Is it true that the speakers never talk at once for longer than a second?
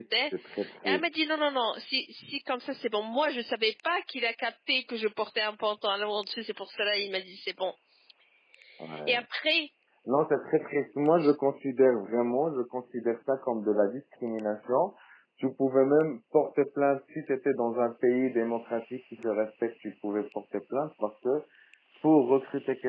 Yes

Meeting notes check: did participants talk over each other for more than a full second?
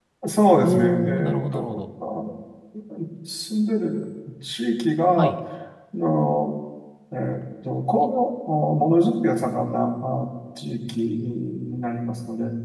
Yes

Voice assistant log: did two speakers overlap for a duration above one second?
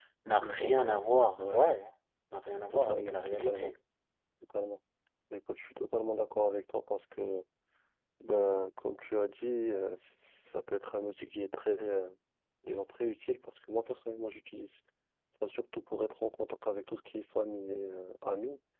Yes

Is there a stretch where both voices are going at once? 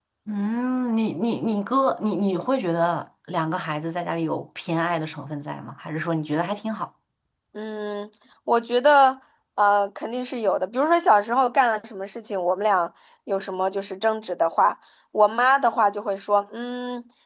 No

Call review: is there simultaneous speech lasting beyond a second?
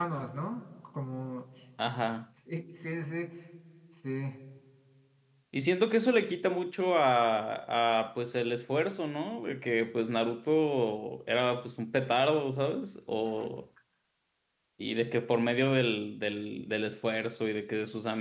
No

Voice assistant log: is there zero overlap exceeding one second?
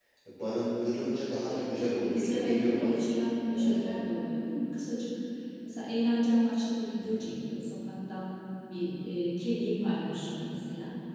No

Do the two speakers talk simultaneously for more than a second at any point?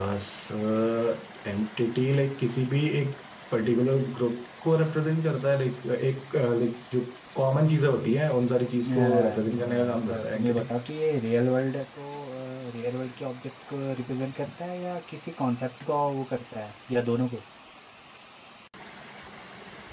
Yes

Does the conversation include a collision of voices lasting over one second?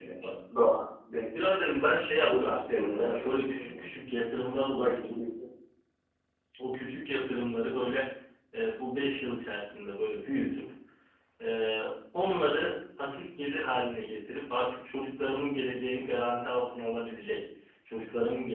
Yes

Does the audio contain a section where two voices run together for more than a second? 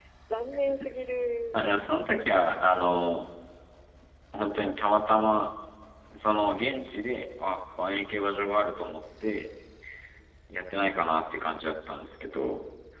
No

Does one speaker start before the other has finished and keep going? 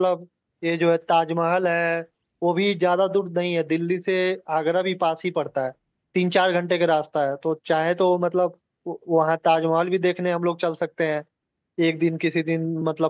No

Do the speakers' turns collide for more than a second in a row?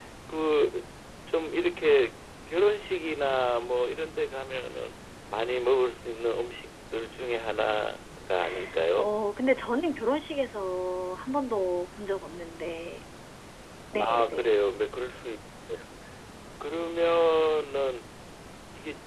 No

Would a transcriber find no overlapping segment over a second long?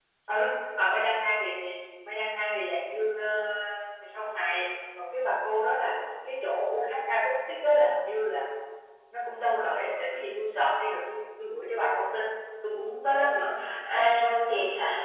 Yes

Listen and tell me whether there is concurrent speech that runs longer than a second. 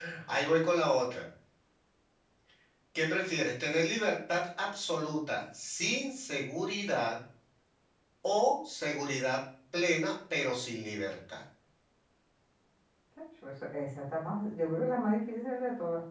No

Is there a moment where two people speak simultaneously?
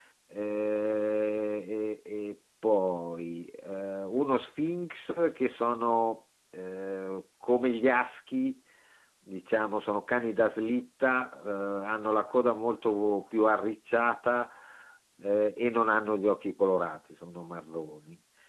No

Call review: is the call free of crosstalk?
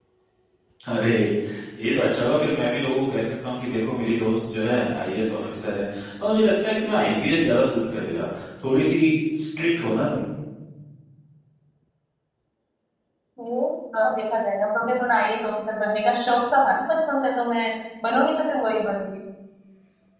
Yes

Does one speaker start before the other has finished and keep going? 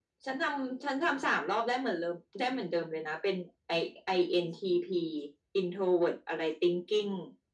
No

